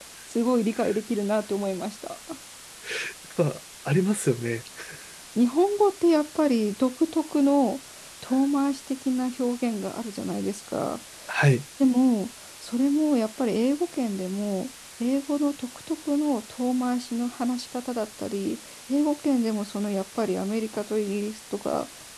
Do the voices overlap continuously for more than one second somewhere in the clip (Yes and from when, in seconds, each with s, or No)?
No